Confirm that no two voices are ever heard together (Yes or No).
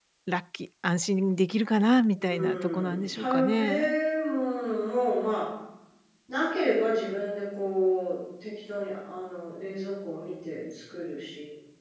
No